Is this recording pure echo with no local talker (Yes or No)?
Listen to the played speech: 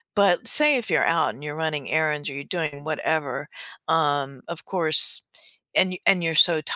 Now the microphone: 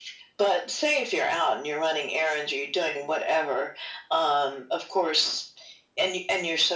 Yes